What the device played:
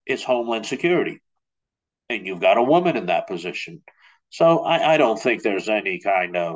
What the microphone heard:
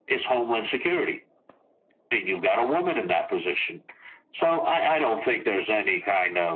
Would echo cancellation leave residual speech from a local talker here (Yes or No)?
No